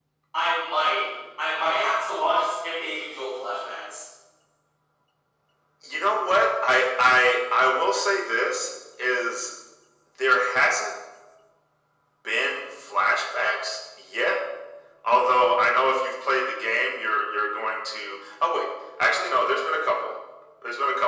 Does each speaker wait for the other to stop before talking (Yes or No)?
Yes